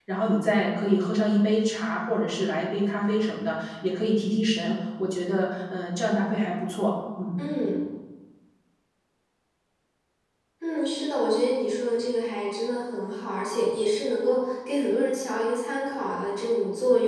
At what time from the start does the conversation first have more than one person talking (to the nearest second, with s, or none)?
none